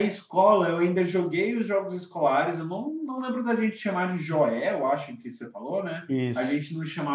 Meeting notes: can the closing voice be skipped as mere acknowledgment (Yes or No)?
Yes